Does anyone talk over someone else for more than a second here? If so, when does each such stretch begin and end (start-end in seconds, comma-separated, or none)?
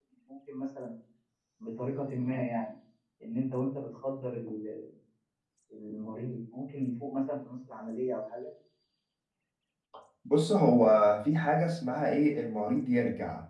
none